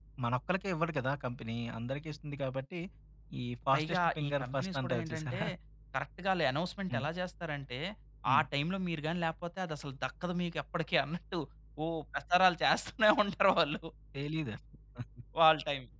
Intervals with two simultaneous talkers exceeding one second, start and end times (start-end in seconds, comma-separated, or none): 3.7-5.4